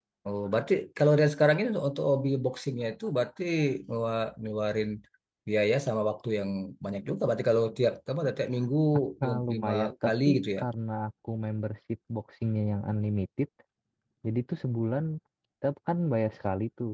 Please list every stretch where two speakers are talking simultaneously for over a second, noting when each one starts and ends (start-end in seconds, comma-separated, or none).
9.2-10.6